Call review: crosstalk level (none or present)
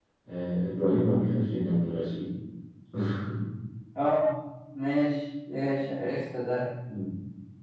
none